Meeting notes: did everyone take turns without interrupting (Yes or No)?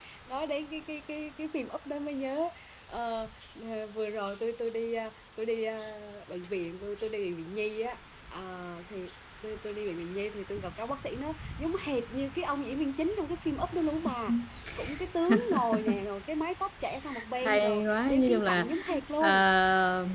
No